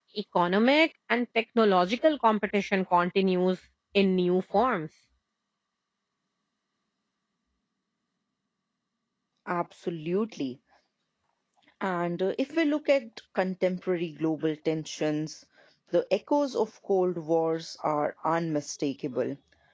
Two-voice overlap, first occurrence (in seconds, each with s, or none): none